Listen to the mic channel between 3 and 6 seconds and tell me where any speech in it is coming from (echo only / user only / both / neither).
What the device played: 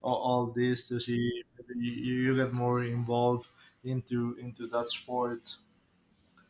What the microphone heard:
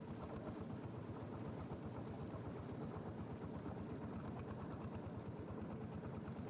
neither